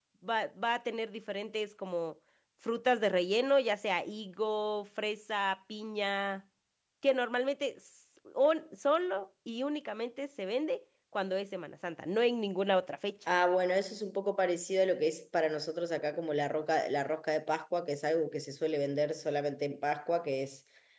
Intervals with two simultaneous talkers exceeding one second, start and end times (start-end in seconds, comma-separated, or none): none